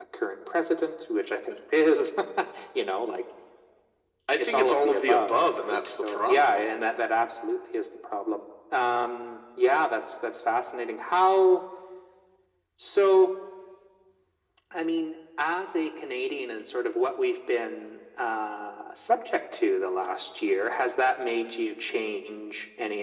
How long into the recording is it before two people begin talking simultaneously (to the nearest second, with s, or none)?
4 s